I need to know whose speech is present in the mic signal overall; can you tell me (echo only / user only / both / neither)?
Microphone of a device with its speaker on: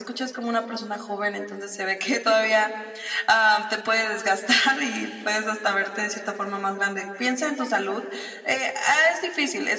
echo only